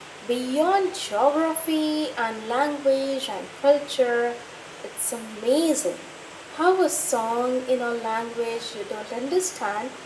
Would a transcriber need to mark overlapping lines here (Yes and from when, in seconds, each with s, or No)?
No